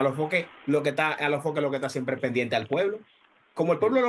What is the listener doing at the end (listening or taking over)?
listening